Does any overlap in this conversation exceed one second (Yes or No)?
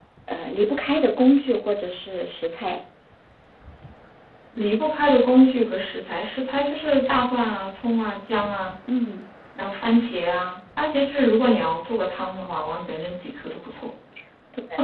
No